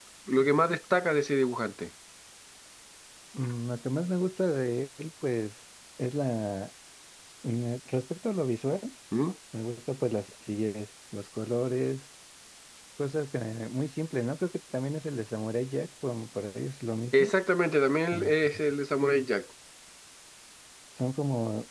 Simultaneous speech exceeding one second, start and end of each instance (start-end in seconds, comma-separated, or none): none